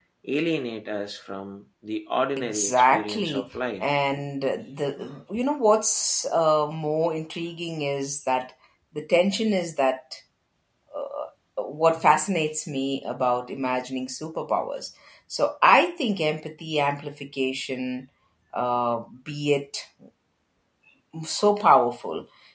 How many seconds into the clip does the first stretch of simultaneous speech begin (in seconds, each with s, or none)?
2.4 s